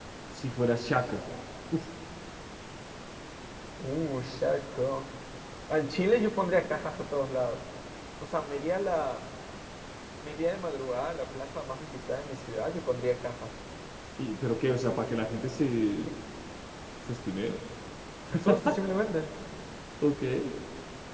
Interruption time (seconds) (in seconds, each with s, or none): none